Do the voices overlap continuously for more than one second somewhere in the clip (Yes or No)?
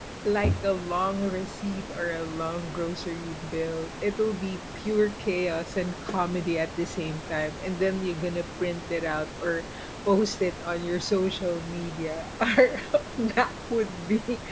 No